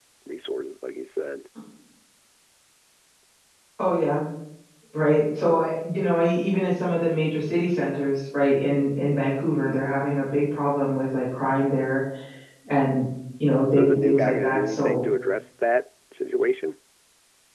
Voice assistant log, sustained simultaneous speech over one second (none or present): present